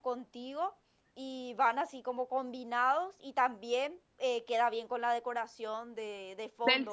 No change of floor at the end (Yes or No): No